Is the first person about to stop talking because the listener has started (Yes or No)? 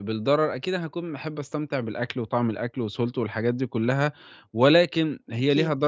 No